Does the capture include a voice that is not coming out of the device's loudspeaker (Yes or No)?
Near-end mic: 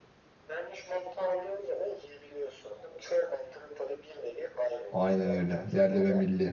Yes